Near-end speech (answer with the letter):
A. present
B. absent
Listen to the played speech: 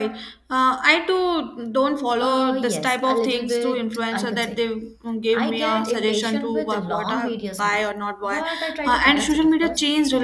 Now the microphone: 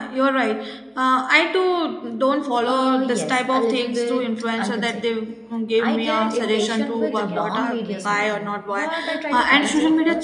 A